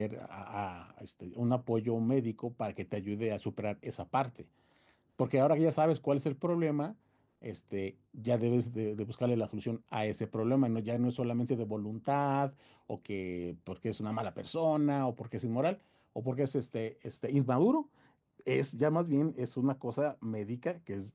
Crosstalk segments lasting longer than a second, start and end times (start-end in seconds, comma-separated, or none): none